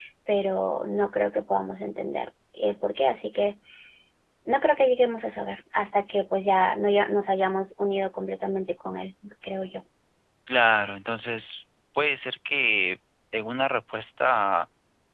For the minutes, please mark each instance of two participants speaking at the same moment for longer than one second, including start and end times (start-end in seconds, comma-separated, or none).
none